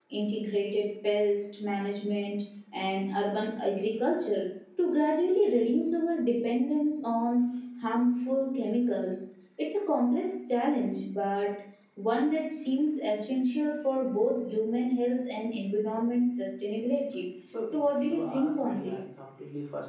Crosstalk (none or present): present